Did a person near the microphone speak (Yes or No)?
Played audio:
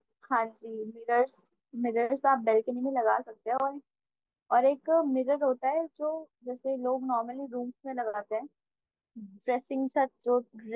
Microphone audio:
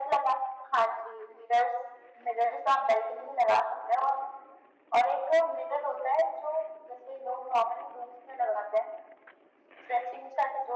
No